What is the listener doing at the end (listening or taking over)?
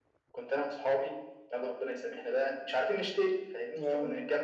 listening